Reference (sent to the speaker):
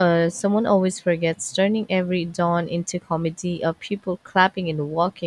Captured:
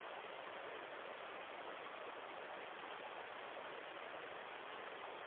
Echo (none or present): none